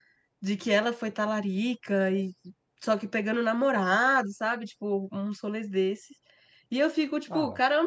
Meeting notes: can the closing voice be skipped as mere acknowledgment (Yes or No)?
Yes